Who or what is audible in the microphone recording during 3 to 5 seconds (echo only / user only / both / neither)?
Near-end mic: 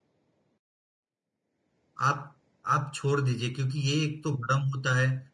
user only